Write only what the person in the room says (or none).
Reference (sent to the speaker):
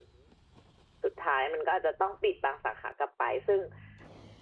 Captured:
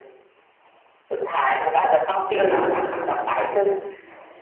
เออ